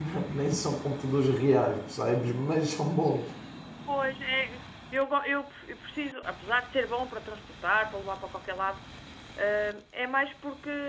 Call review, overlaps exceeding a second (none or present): none